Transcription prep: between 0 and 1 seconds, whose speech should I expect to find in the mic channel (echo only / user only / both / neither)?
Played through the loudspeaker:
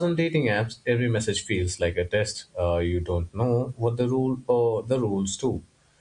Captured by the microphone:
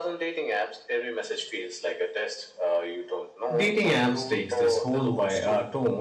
echo only